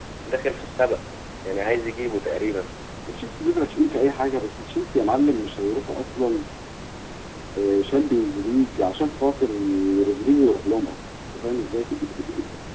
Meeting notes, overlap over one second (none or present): none